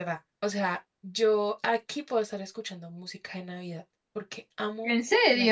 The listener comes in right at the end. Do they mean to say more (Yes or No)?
No